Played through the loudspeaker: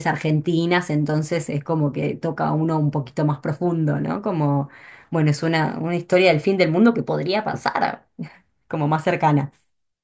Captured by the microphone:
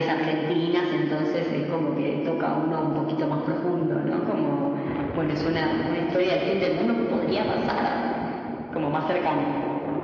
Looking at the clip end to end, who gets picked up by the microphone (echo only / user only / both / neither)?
echo only